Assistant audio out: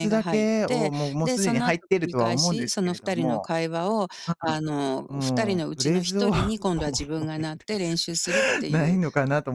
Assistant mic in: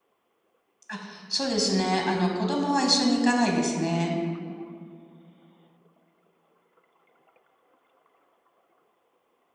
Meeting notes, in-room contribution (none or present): present